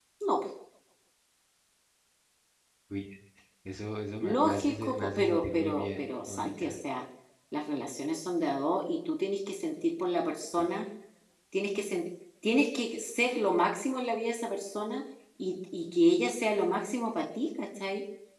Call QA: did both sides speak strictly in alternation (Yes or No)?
No